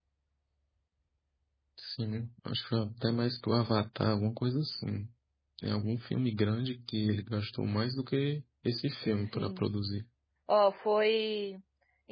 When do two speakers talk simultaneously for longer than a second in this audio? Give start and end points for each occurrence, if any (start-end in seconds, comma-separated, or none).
none